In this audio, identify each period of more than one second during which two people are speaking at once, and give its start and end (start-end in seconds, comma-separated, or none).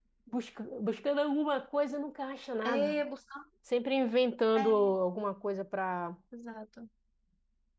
none